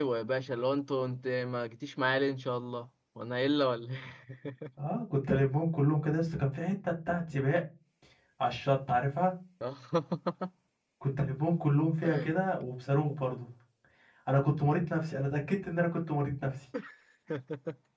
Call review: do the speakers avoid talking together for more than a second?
Yes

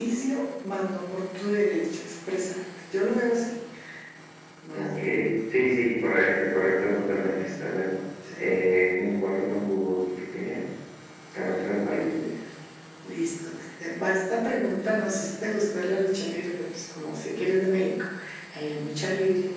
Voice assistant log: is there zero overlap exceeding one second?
Yes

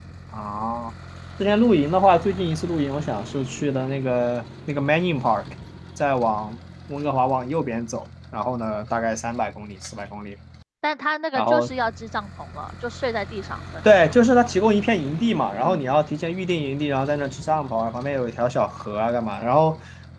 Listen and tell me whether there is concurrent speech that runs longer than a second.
No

